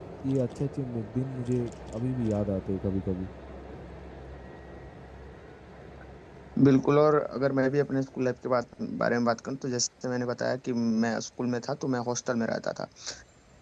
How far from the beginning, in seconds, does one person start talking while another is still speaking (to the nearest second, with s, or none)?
none